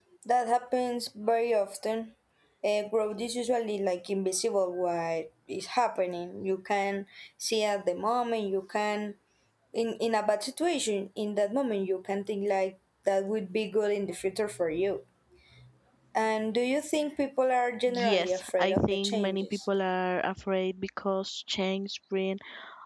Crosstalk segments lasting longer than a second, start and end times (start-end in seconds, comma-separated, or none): 17.9-19.6